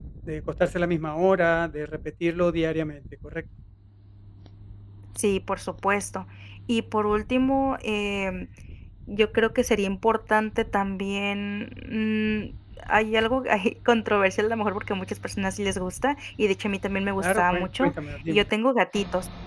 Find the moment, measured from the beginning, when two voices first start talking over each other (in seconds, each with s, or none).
17.2 s